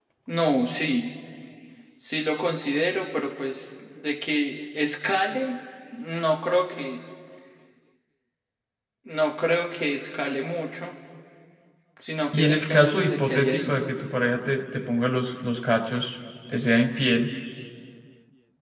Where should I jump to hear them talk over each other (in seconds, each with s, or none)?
12.3 s